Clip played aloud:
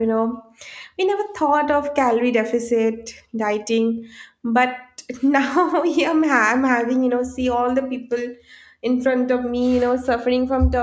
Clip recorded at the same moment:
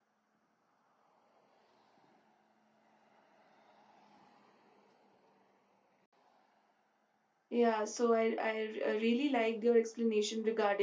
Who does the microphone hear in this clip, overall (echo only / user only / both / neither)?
user only